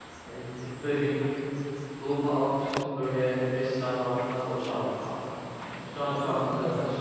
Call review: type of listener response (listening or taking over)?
listening